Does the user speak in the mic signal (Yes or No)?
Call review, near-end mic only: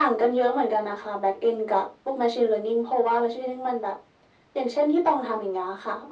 No